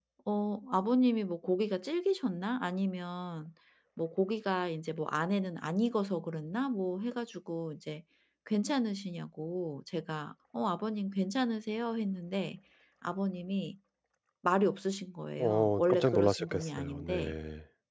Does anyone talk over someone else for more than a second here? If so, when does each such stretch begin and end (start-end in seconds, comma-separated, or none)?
15.4-17.3